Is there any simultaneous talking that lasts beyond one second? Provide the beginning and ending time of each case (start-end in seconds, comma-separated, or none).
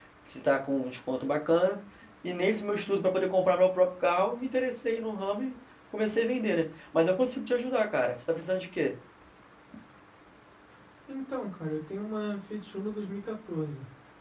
none